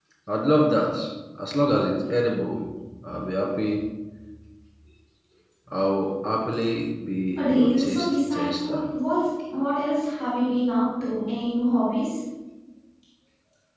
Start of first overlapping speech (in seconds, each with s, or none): 7.4 s